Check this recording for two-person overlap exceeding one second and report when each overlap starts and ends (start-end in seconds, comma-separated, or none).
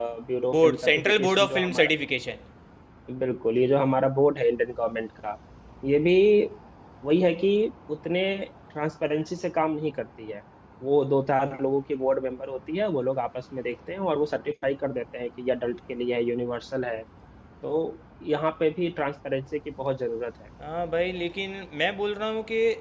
0.5-1.9